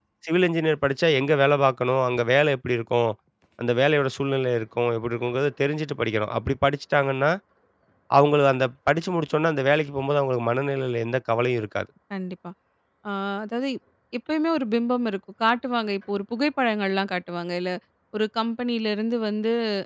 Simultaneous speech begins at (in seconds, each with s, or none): none